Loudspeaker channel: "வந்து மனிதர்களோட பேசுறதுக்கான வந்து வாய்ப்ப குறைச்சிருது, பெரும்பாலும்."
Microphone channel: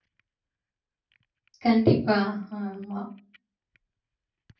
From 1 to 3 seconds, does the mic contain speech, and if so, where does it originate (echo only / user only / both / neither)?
user only